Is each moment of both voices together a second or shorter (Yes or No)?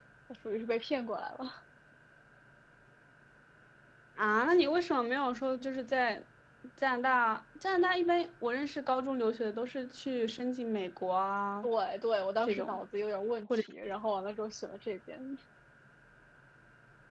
Yes